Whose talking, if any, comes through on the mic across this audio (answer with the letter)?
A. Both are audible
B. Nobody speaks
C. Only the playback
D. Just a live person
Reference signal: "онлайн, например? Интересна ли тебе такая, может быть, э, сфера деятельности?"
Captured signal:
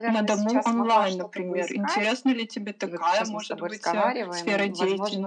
A